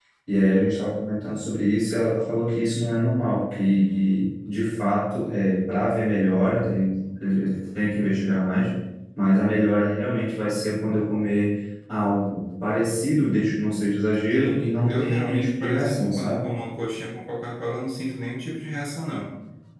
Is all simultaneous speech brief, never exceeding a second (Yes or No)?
No